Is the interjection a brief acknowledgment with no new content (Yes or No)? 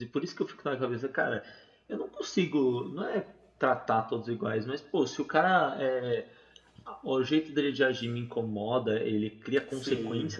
Yes